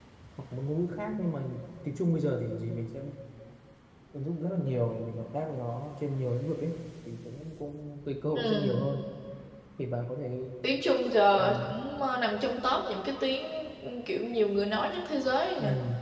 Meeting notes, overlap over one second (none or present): none